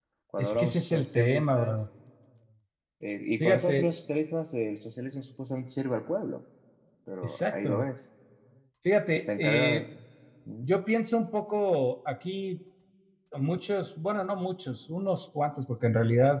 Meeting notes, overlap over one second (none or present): present